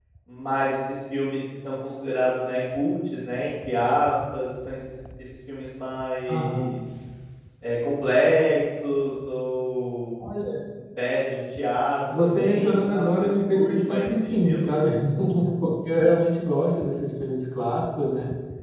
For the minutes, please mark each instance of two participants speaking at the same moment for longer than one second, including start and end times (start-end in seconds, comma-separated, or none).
12.1-14.7